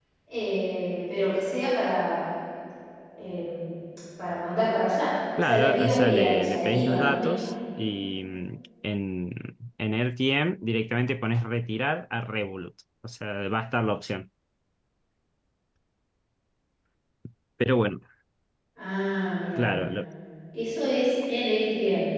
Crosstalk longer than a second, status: present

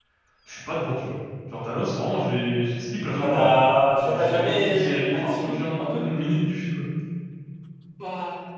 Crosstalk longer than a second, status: present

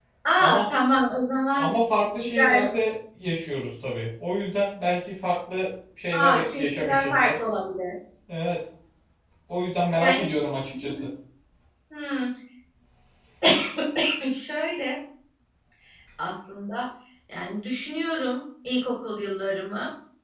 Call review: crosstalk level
present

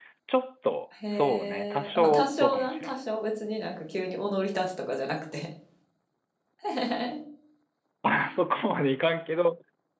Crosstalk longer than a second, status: present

